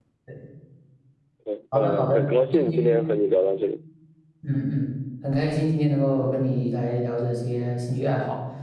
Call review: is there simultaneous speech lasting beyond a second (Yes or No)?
Yes